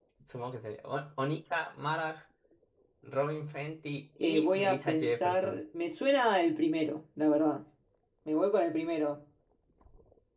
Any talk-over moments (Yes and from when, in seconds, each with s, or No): Yes, from 4.2 s